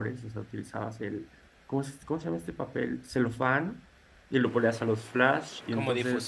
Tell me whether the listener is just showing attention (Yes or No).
Yes